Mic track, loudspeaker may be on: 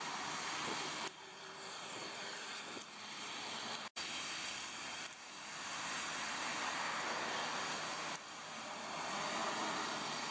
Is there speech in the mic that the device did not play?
No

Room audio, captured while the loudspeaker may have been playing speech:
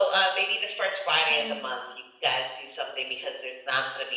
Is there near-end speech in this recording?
Yes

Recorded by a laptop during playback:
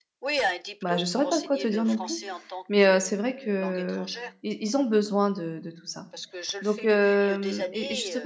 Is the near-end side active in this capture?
Yes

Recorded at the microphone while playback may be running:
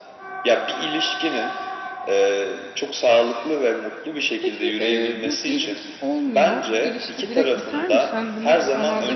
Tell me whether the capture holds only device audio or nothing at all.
No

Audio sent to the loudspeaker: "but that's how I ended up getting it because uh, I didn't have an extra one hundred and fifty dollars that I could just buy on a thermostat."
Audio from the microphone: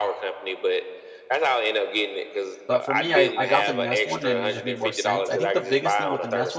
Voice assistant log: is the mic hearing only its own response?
No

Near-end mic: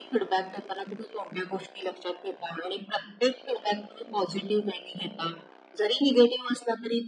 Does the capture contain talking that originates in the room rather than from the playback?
No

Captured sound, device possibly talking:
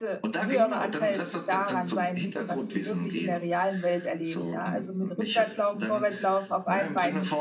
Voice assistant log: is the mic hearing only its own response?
No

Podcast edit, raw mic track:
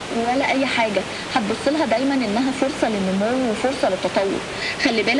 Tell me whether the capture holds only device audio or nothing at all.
Yes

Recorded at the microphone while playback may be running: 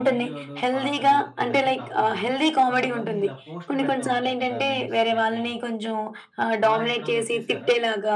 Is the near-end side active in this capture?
Yes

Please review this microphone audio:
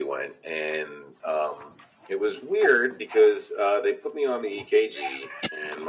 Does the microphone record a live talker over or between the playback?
No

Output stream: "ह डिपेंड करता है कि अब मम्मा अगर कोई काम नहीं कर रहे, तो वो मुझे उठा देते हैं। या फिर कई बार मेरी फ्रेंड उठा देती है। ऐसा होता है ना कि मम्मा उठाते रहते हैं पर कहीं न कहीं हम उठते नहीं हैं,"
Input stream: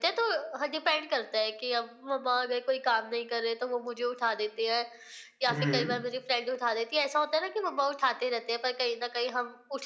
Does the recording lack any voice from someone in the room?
No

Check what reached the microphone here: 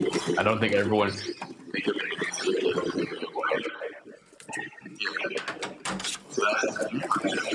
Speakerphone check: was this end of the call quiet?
No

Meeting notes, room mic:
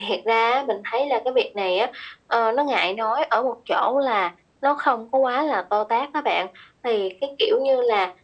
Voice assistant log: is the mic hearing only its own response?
Yes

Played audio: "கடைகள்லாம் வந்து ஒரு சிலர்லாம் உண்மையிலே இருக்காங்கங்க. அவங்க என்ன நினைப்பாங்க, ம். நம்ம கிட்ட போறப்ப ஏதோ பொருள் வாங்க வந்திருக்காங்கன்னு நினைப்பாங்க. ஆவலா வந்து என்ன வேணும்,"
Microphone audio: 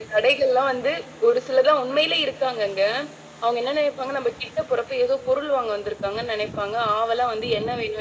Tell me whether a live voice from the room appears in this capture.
No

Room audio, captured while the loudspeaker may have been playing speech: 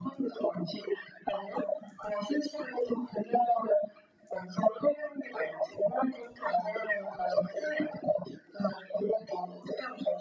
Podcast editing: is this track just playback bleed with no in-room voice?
Yes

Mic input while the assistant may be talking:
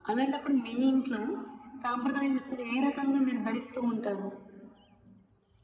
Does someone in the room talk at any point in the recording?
No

